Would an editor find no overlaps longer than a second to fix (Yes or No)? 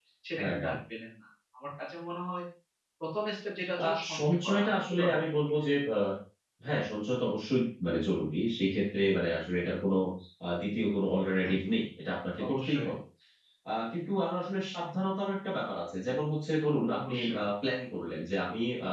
No